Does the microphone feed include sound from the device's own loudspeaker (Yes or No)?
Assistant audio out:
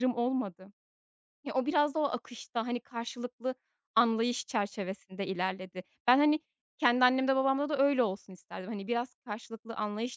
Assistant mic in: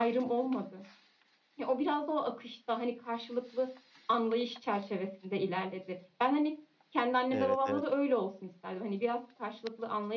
Yes